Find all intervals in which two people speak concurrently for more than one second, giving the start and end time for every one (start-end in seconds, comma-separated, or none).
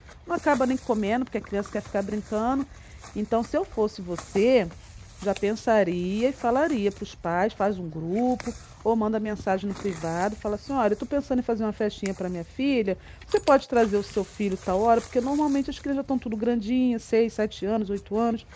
none